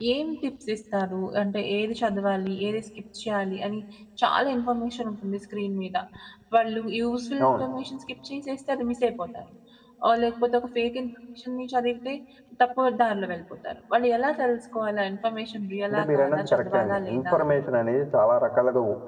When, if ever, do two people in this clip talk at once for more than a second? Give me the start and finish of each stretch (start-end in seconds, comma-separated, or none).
15.9-17.6